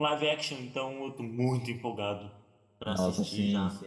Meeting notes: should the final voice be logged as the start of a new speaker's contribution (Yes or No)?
Yes